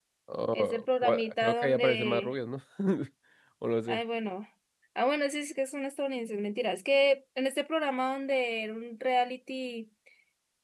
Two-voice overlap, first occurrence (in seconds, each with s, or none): 0.5 s